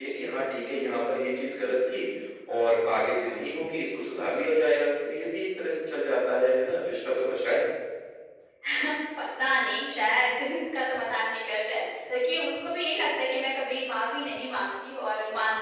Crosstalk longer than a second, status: none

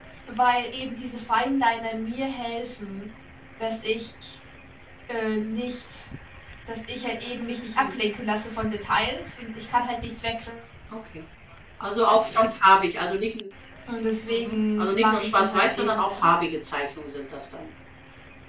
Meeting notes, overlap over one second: present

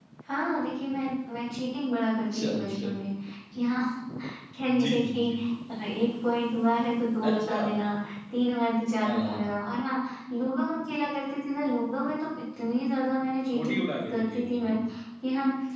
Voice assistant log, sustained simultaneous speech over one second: present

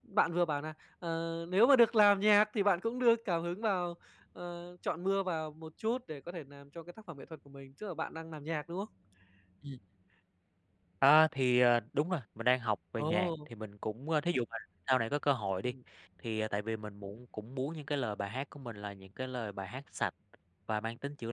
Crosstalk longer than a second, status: none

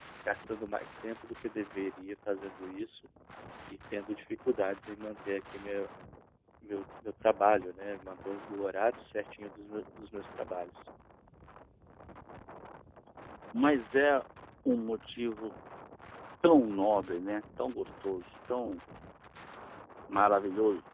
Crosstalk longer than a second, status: none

